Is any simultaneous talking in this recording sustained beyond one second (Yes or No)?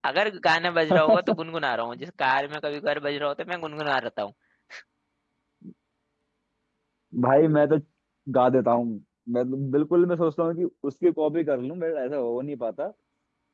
No